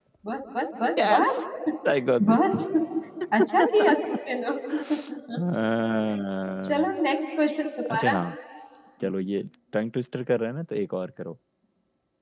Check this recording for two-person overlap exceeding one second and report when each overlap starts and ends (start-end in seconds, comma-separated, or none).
none